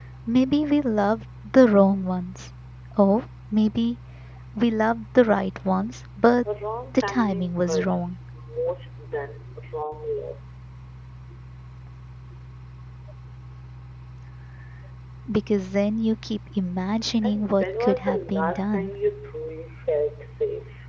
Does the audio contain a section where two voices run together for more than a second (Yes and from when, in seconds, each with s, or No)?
Yes, from 6.9 s